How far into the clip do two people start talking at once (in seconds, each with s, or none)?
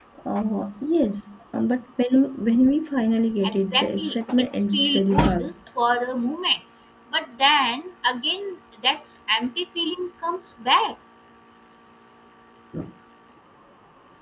3.4 s